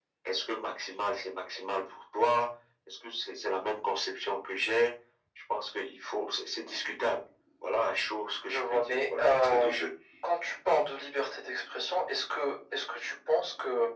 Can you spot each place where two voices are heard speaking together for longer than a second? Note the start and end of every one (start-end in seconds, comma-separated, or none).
8.5-9.7